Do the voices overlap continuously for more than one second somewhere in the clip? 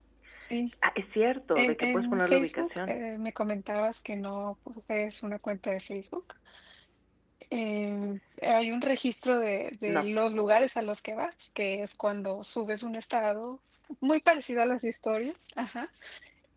Yes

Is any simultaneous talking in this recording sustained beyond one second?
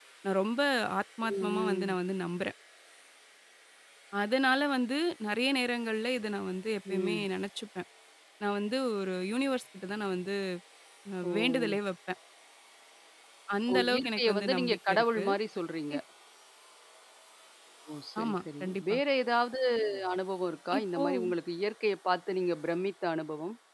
Yes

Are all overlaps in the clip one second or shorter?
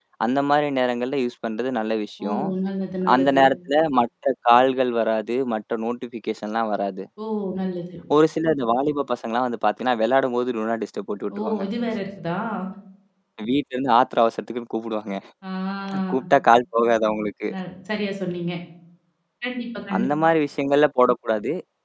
Yes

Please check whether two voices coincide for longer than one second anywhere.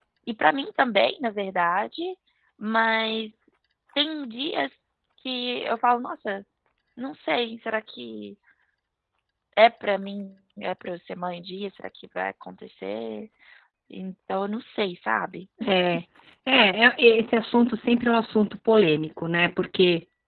No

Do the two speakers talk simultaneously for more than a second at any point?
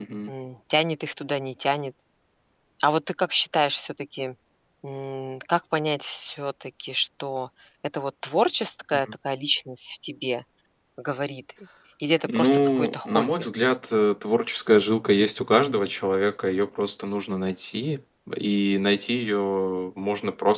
Yes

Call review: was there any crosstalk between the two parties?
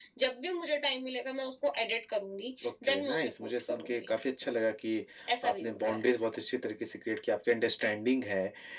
Yes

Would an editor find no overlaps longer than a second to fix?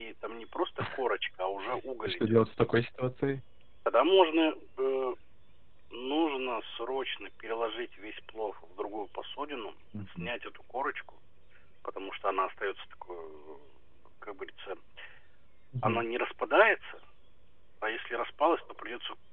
Yes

